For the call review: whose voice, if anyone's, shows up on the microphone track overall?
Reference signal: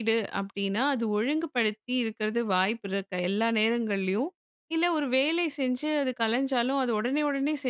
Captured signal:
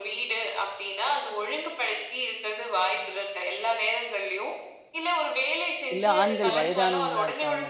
both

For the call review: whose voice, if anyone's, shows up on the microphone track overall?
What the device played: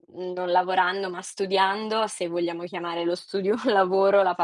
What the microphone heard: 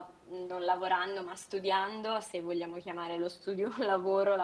echo only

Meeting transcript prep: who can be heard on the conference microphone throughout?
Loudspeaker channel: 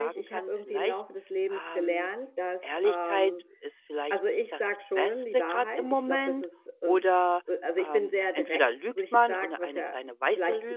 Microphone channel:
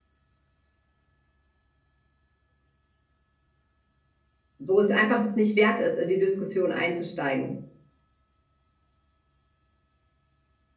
user only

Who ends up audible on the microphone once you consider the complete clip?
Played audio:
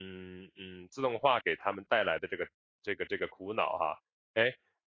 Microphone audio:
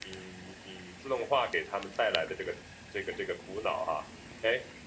echo only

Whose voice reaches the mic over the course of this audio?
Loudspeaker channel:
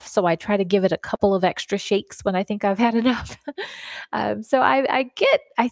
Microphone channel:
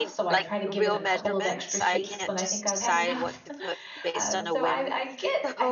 both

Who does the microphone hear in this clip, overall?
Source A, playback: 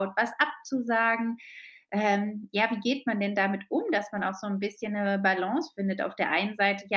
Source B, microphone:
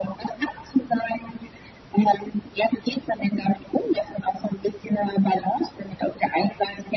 echo only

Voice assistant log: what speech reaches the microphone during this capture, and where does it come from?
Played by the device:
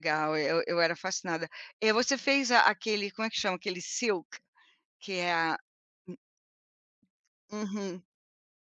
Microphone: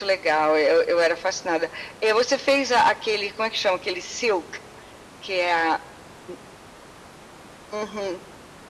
echo only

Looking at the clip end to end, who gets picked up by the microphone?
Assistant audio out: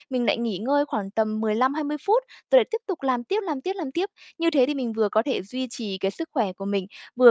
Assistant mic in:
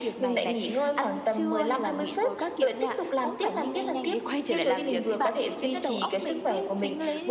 both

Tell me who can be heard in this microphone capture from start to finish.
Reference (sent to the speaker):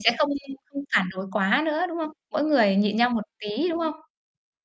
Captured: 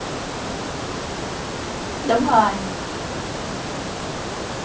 user only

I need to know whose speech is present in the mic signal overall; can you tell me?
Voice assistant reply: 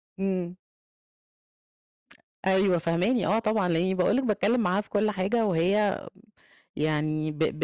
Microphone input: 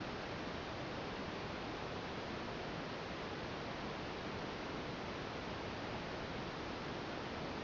neither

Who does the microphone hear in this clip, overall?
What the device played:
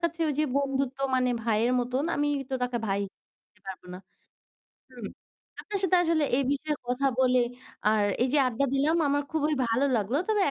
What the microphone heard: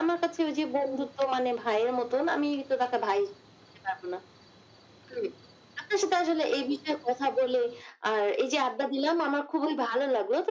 echo only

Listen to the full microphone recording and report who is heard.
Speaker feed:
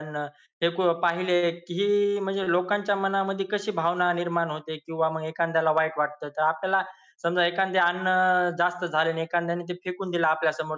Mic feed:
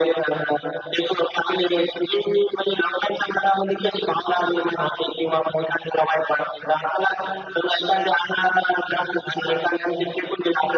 echo only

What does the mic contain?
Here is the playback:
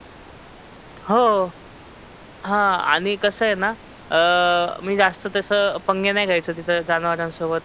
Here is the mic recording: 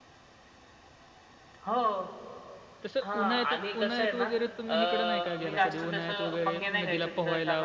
both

